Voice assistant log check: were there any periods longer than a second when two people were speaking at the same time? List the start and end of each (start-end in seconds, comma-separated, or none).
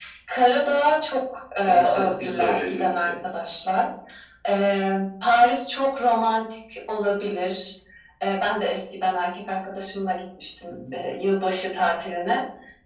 1.7-3.1